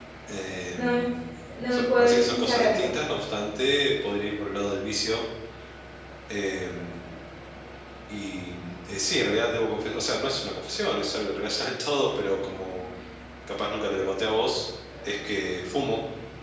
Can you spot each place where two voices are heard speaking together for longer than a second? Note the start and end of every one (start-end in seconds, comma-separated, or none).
1.7-2.9